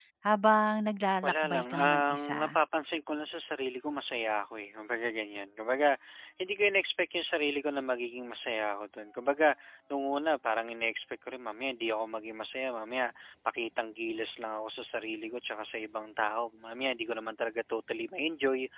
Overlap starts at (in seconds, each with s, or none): 1.2 s